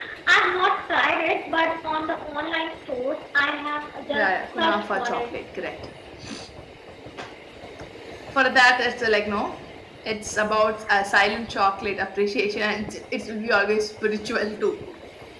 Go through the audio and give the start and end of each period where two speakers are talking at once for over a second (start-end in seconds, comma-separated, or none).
4.1-5.3